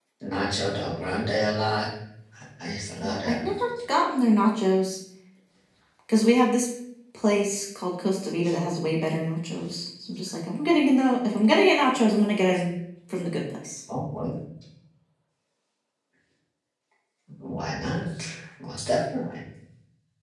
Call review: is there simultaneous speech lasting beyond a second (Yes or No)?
No